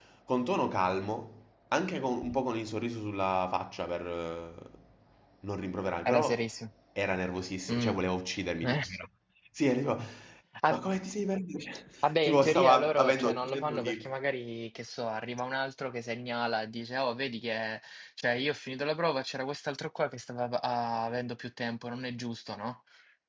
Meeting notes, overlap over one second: present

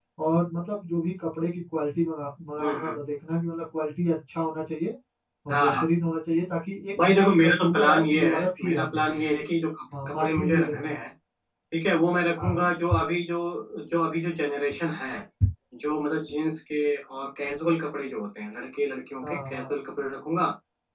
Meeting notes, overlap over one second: present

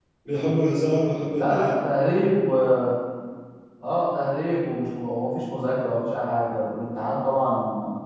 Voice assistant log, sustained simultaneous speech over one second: none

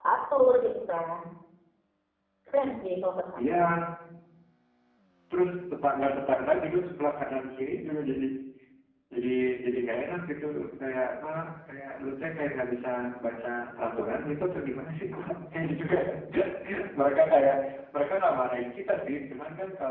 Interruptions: none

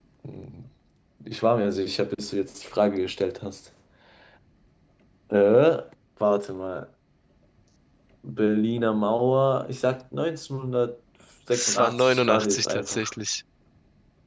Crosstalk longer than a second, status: present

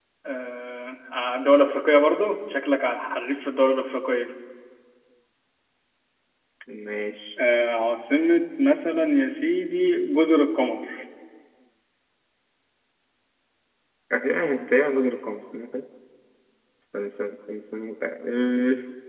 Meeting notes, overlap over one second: none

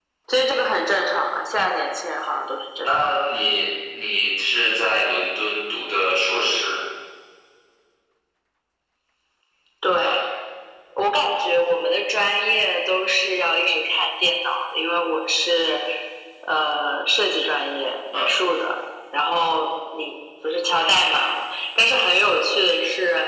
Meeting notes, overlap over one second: none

